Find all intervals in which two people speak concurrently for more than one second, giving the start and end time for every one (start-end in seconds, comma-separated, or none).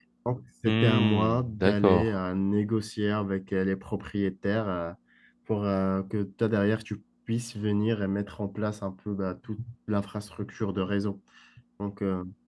0.6-2.1